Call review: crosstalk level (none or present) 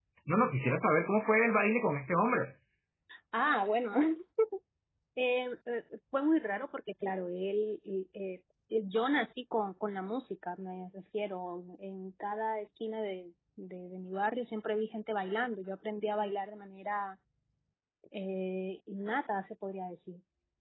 none